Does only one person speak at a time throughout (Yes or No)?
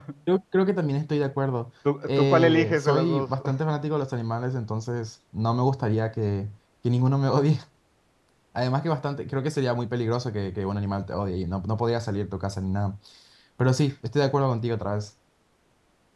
No